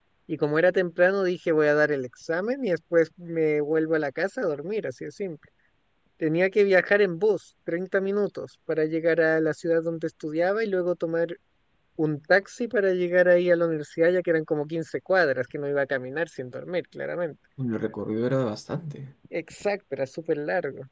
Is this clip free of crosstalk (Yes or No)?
Yes